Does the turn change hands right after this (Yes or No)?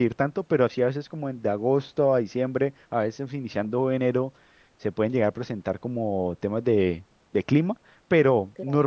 No